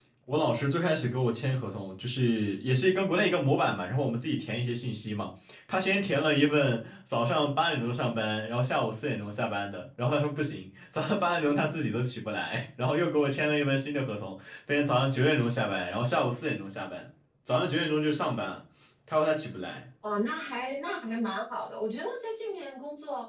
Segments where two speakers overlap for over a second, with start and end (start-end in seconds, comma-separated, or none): none